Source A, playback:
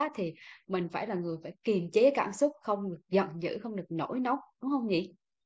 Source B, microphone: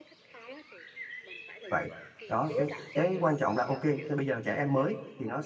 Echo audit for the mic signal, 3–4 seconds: both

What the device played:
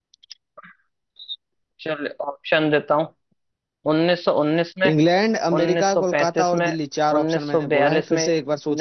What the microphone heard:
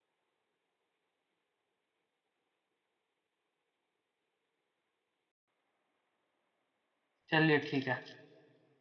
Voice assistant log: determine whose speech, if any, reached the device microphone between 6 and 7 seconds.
neither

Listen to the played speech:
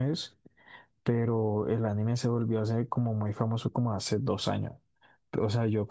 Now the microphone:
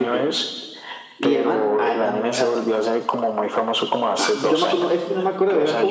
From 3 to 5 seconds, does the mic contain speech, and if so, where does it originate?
both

